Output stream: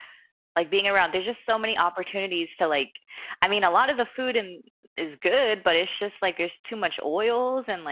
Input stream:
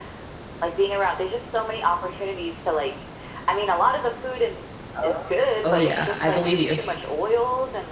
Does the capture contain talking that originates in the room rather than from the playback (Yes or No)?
Yes